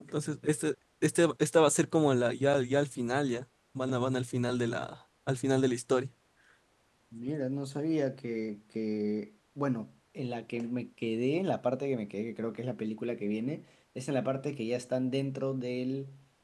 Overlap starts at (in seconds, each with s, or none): none